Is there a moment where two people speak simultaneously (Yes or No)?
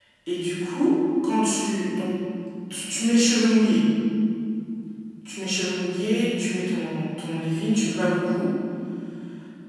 No